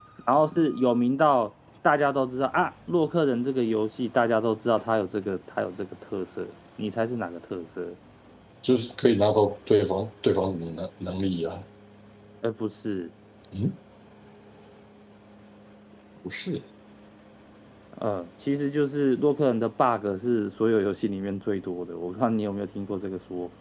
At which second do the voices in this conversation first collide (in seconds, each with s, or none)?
none